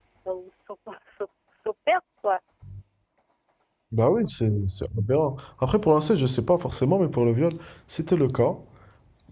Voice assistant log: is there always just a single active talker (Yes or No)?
Yes